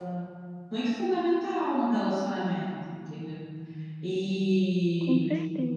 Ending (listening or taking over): listening